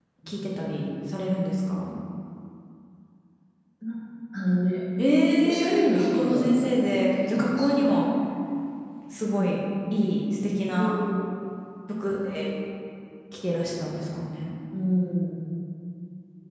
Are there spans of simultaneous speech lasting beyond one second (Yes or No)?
Yes